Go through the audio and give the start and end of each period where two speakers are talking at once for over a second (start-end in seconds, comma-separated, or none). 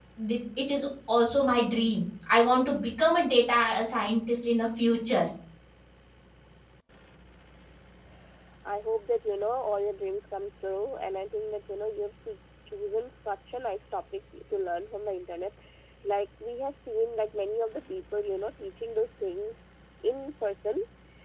none